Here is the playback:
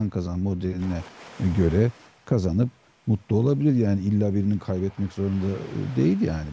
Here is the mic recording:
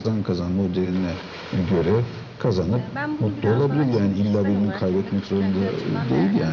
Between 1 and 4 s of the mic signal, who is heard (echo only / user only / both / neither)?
both